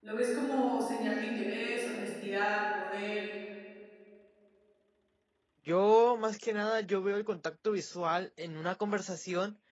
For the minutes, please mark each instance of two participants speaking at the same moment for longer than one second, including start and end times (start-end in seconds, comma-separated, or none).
none